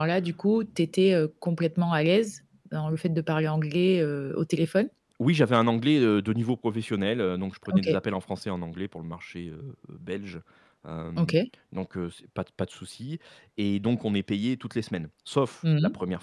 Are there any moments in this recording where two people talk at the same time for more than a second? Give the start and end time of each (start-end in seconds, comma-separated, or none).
none